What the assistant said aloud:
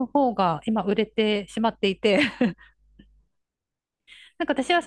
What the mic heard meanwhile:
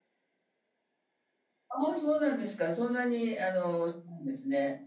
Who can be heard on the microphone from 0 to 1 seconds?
neither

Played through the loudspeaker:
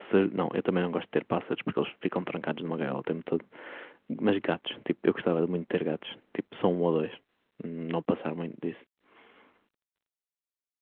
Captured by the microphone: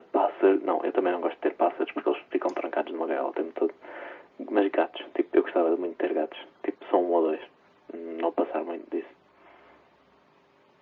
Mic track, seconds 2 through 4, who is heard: echo only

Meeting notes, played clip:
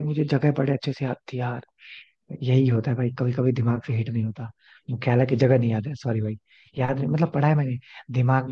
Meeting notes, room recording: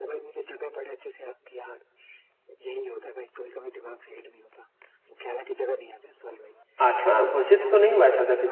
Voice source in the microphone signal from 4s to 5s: echo only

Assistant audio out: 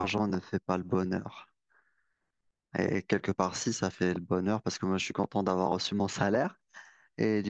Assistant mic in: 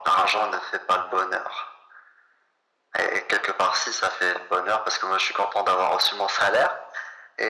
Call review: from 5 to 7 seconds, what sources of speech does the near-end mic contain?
echo only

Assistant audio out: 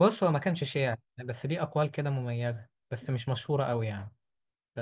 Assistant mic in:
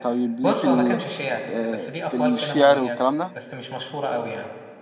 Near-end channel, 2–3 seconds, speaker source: both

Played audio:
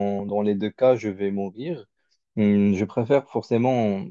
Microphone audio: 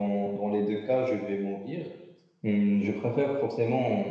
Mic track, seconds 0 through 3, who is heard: echo only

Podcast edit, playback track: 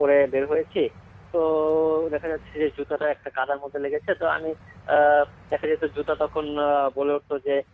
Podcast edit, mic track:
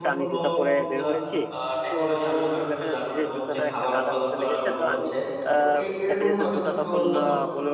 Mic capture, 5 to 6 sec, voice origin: both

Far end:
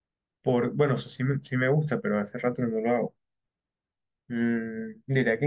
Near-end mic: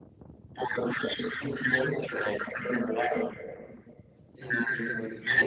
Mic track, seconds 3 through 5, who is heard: both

